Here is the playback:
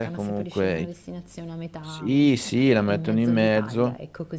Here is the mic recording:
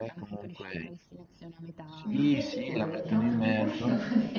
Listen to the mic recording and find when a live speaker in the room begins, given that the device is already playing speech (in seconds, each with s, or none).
2.0 s